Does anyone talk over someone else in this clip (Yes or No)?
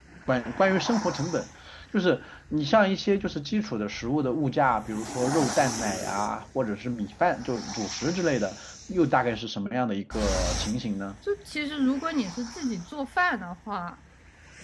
No